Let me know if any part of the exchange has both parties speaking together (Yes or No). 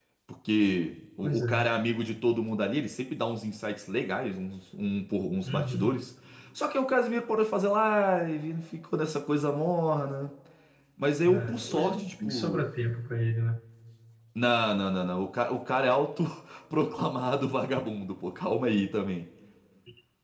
Yes